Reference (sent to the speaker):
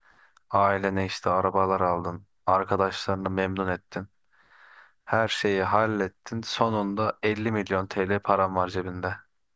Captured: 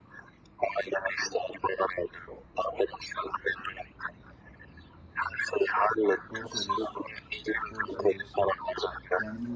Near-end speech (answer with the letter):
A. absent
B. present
B